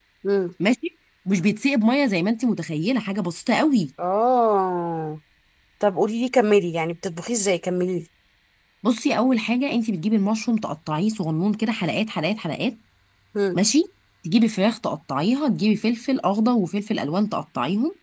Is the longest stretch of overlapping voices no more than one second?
Yes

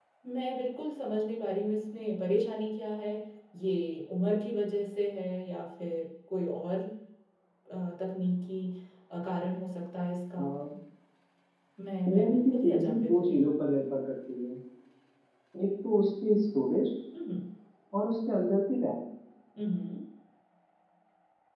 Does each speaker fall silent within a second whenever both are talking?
No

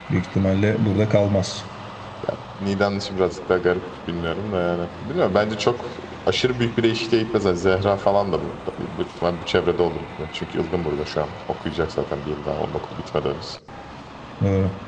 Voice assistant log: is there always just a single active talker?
Yes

